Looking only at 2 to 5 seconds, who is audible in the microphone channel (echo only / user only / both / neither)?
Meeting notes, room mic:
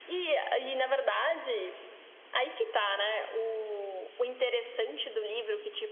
echo only